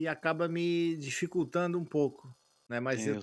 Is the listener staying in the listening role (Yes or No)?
Yes